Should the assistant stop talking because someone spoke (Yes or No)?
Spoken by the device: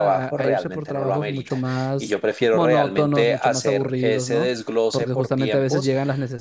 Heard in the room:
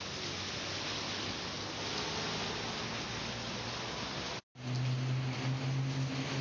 No